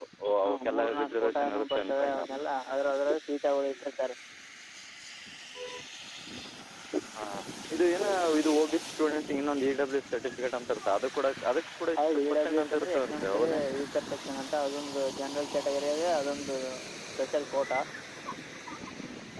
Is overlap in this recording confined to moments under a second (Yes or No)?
No